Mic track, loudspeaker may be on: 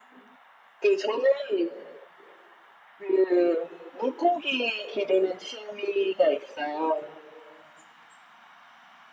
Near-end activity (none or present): none